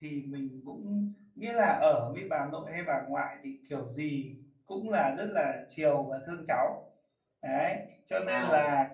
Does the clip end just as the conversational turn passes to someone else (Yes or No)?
No